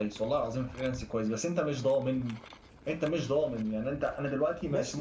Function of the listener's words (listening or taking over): listening